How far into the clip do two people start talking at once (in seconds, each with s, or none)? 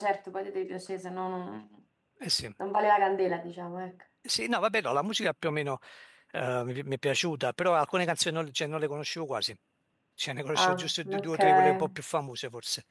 10.6 s